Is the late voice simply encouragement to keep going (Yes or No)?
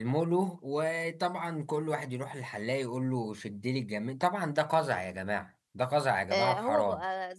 No